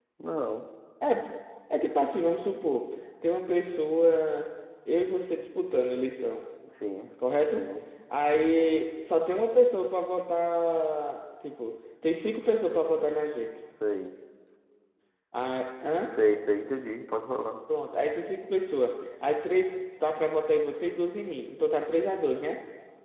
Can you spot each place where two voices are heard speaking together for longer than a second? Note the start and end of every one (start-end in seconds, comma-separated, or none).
none